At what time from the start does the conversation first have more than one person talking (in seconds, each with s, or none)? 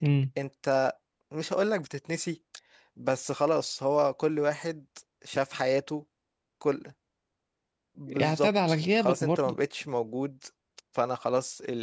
8.2 s